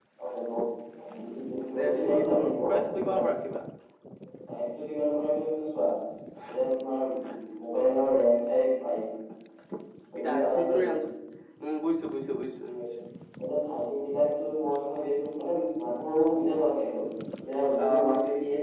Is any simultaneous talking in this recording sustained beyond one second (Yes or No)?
Yes